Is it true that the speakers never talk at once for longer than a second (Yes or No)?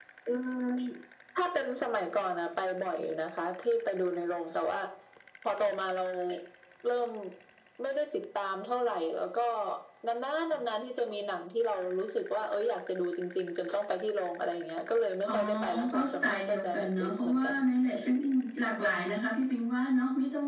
No